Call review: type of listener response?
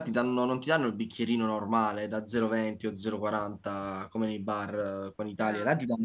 listening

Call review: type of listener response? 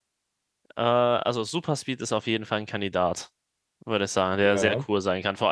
listening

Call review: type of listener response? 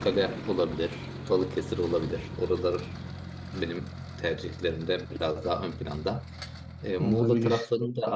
listening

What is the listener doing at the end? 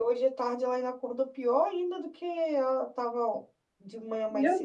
taking over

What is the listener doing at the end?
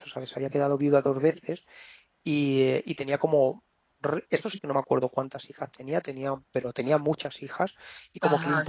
listening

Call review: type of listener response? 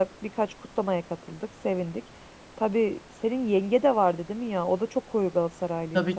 taking over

